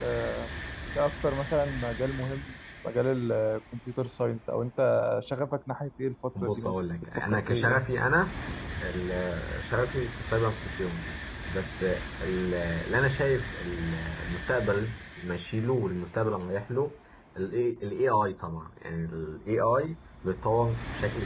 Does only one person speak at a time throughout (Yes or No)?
No